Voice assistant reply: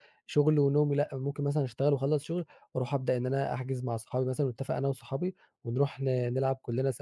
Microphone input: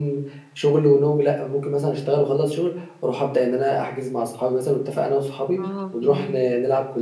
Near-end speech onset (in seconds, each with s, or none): 5.6 s